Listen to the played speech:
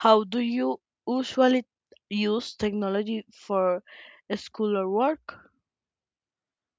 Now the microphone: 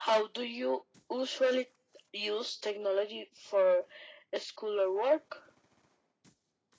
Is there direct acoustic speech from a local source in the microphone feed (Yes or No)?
No